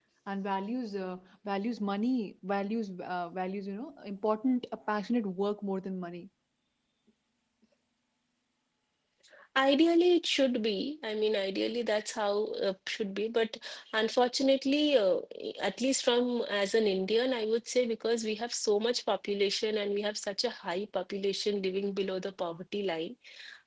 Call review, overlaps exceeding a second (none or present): none